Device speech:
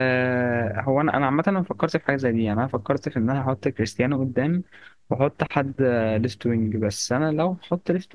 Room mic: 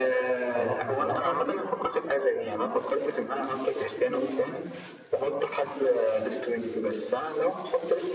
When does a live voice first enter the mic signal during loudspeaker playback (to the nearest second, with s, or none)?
0 s